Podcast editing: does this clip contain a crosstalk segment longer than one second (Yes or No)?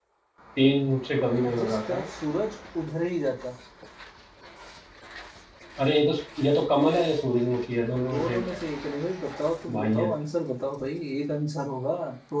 No